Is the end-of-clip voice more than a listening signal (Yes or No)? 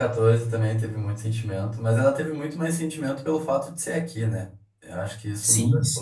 Yes